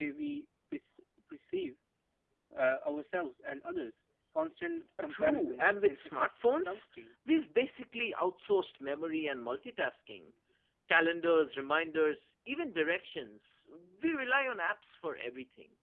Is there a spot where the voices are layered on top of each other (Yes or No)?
Yes